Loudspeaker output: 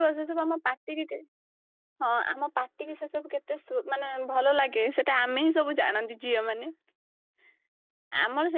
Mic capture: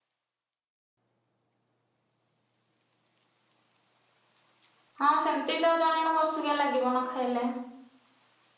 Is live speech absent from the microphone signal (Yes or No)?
No